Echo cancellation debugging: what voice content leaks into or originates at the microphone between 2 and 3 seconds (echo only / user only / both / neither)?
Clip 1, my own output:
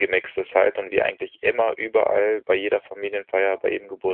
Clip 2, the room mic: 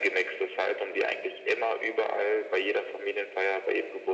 echo only